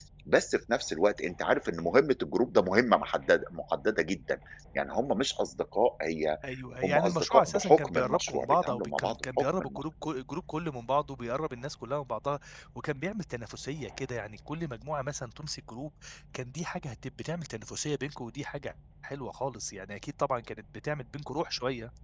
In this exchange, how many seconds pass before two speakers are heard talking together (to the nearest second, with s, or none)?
7 s